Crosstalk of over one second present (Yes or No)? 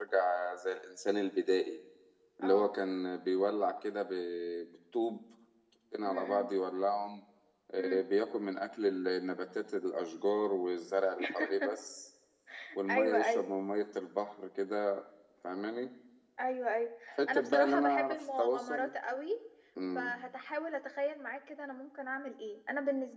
Yes